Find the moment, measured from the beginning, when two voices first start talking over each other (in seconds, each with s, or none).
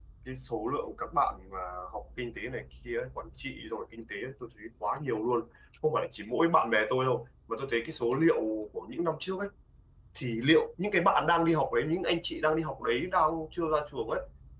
none